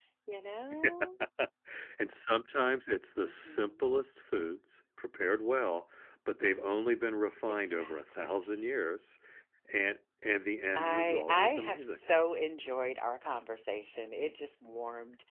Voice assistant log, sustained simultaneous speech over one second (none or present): present